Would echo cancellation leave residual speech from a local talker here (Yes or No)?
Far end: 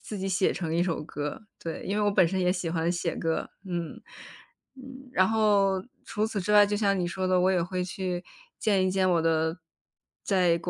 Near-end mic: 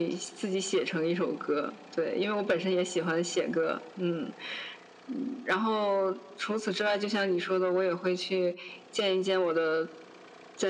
No